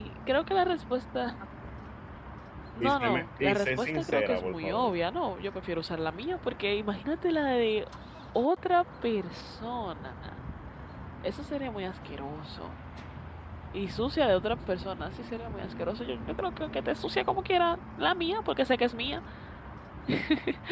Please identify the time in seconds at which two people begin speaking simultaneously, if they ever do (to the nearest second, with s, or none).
3 s